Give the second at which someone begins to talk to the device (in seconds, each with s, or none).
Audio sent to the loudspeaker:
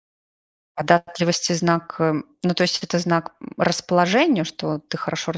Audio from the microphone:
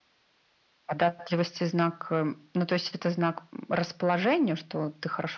none